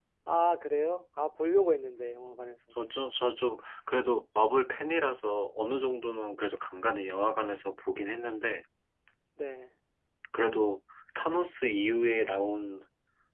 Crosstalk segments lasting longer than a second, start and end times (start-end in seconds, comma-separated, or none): none